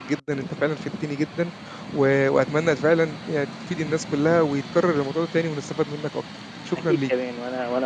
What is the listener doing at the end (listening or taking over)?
taking over